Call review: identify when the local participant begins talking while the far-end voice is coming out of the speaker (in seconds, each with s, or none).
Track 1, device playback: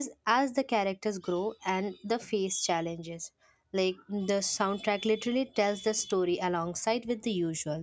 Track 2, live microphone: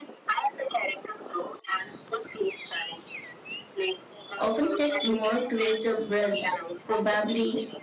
4.4 s